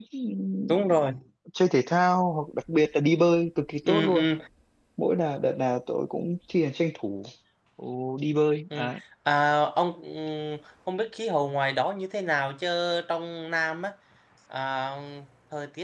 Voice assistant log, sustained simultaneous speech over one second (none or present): none